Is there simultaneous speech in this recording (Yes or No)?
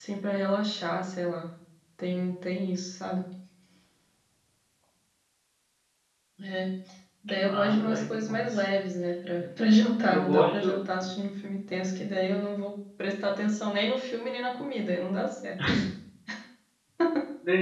Yes